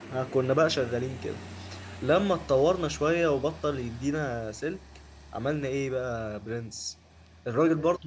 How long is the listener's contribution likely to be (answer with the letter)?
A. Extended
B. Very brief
B